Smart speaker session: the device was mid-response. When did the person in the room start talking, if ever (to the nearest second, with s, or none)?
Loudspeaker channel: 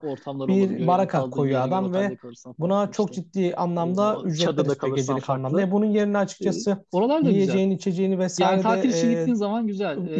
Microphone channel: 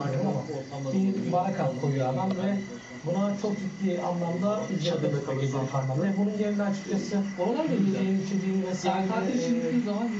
none